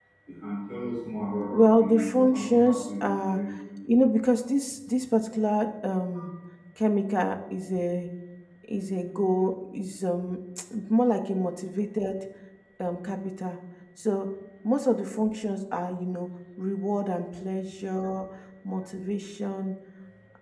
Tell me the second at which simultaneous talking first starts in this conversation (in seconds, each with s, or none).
1.5 s